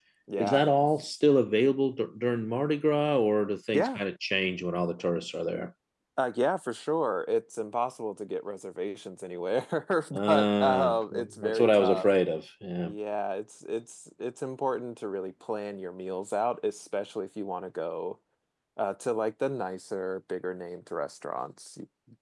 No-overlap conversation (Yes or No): No